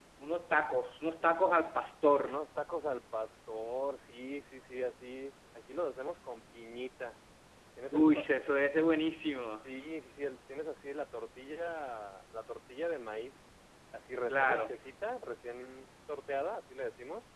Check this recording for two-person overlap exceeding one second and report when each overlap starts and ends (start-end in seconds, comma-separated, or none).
none